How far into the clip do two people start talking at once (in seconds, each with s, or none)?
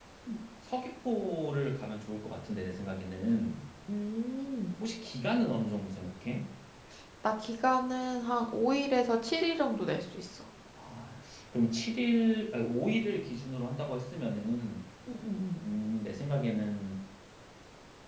none